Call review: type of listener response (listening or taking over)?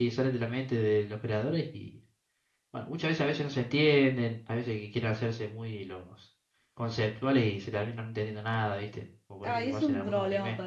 taking over